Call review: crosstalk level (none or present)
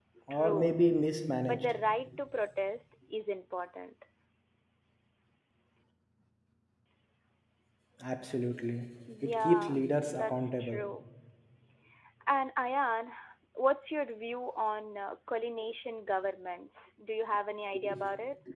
present